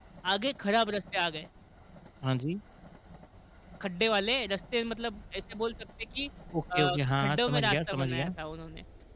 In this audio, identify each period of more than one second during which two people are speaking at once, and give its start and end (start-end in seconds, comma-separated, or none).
6.8-8.3